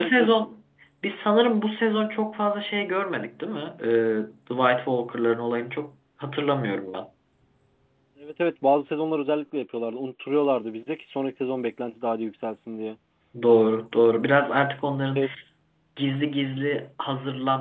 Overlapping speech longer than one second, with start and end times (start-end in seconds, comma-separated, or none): none